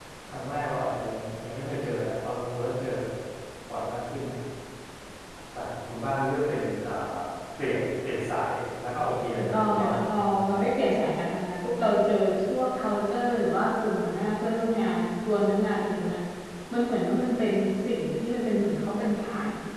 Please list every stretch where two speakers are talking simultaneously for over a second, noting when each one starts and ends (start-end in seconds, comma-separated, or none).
9.4-10.7